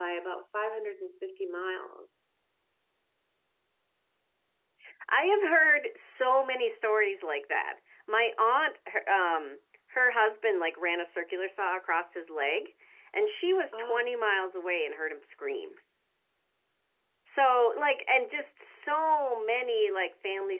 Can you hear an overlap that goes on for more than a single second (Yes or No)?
No